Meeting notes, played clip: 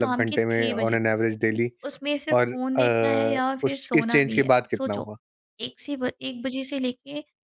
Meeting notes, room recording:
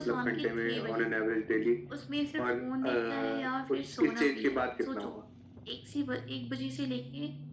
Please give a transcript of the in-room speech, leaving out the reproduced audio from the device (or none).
none